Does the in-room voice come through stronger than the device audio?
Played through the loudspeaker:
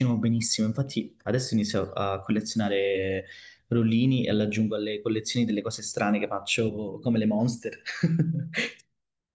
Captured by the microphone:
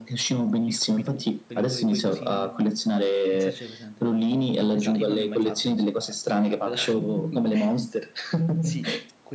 No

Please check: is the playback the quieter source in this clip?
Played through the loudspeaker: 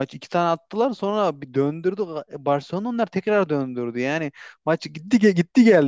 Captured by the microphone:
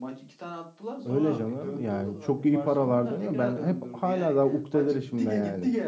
Yes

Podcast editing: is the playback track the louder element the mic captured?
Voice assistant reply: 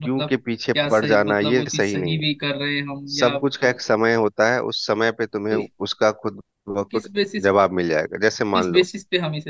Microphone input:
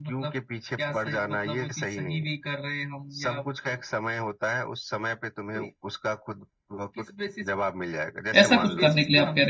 No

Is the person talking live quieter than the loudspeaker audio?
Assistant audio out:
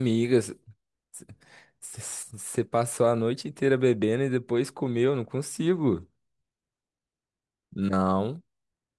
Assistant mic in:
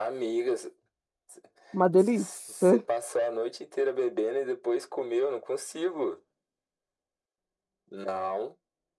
No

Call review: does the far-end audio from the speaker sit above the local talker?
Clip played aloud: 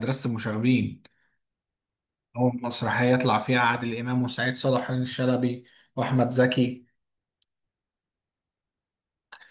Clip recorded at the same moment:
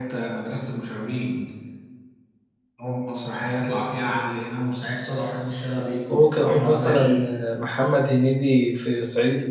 No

